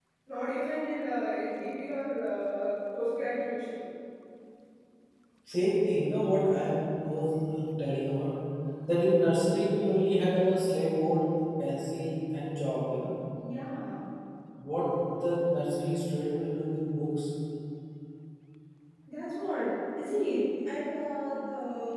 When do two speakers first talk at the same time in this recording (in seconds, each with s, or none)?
none